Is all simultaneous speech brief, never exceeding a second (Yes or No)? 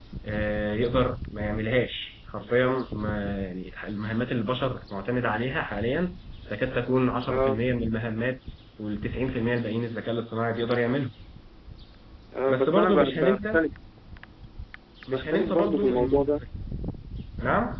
No